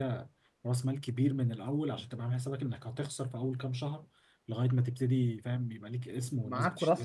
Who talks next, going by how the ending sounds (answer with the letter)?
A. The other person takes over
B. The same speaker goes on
A